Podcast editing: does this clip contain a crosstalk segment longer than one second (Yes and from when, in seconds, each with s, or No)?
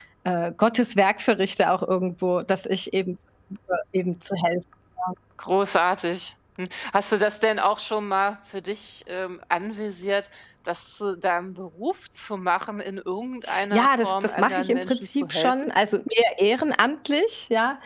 Yes, from 13.5 s